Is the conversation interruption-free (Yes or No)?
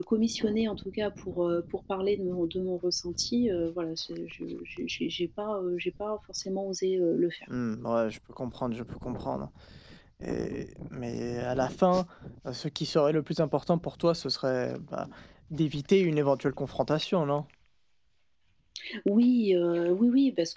Yes